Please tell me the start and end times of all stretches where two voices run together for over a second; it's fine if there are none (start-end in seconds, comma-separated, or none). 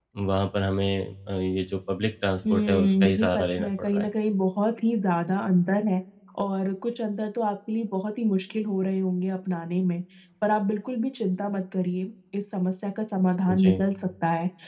2.5-4.1